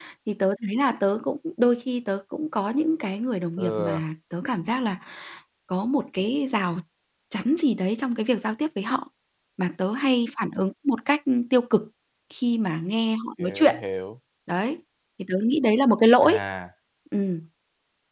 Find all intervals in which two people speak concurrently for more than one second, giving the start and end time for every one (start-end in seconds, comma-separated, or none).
none